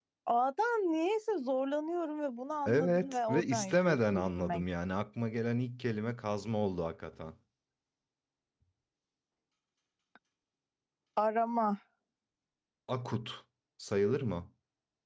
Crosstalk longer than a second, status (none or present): present